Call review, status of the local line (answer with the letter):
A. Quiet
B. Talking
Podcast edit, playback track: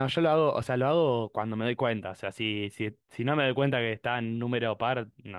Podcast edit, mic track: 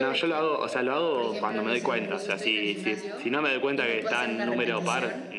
B